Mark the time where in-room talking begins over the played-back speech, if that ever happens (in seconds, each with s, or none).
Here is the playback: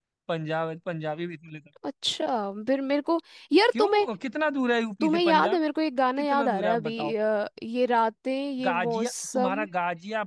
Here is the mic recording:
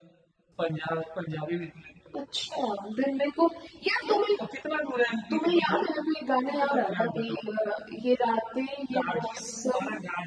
none